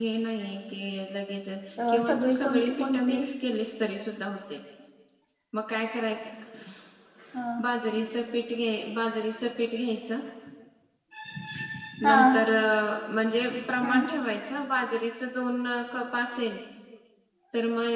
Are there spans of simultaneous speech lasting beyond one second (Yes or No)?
Yes